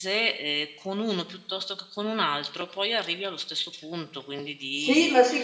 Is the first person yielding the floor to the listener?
Yes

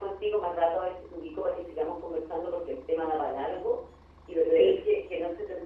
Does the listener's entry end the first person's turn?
No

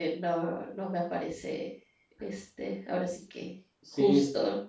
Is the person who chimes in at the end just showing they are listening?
No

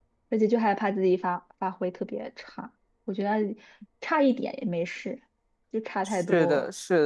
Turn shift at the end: Yes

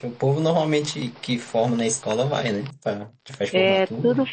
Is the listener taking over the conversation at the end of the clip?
Yes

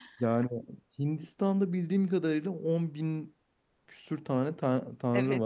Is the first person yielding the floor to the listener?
Yes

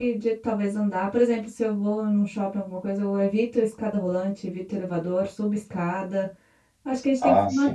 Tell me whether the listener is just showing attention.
Yes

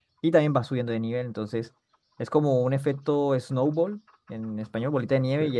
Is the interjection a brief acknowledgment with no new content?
Yes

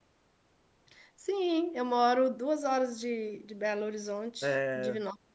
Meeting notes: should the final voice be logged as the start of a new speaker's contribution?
Yes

